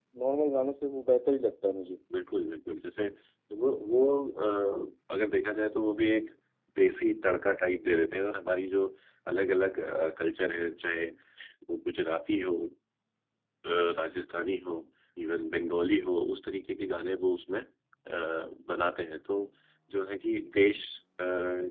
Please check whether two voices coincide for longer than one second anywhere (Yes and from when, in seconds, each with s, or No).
No